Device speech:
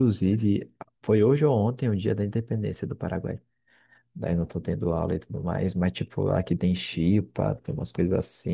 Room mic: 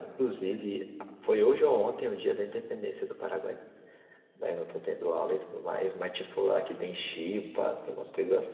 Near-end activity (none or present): none